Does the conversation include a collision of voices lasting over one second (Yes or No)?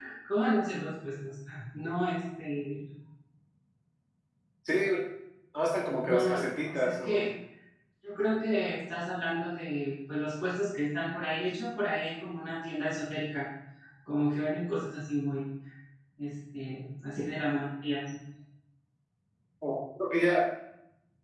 Yes